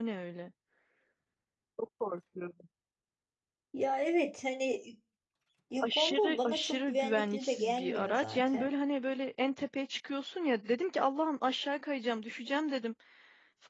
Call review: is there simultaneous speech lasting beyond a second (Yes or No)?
Yes